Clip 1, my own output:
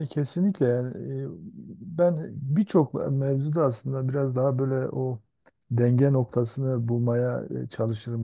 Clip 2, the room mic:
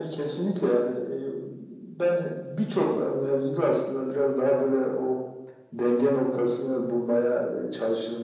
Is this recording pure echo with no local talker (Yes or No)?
Yes